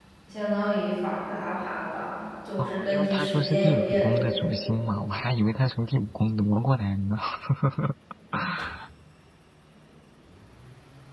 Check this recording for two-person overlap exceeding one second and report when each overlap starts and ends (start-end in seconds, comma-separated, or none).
2.6-4.6